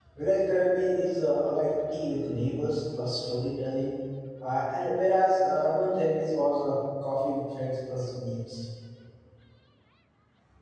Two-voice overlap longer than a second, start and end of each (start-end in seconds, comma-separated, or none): none